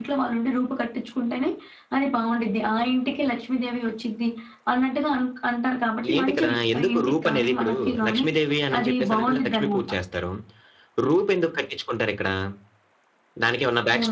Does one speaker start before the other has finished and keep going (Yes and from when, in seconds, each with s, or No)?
Yes, from 6.0 s